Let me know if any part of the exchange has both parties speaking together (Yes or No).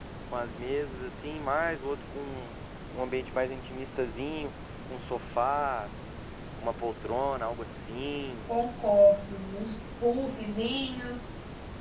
No